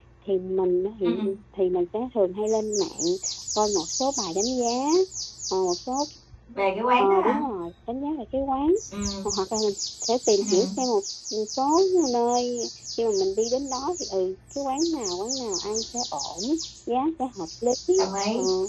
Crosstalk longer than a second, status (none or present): none